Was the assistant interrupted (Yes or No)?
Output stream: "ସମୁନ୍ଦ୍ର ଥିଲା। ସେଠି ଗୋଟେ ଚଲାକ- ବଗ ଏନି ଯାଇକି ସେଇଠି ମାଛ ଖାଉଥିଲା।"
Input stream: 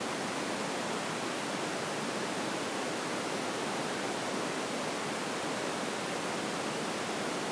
No